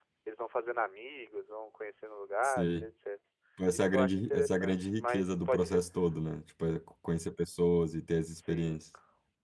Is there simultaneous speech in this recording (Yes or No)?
Yes